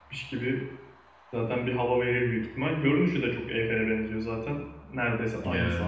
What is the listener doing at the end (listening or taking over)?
taking over